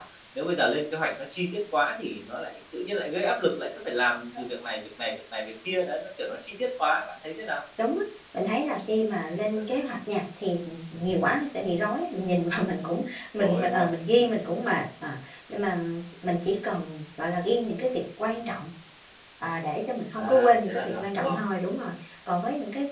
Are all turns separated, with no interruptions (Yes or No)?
No